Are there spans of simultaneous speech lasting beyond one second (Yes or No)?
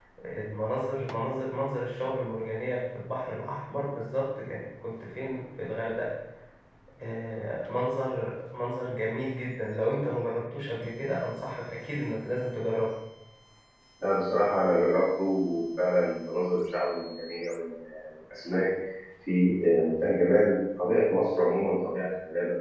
No